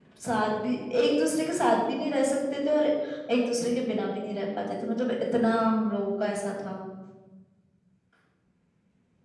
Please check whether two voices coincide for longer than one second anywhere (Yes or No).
No